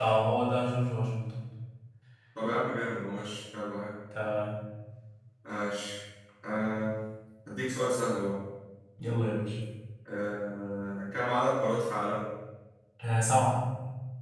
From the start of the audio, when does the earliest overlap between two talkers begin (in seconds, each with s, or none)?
none